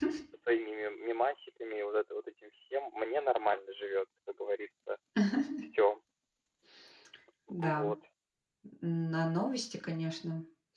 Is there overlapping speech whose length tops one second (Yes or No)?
No